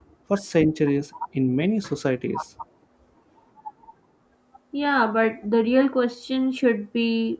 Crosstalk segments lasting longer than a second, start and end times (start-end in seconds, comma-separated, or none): none